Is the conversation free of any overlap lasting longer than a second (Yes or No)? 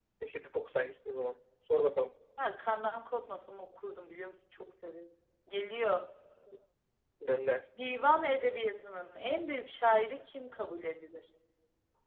Yes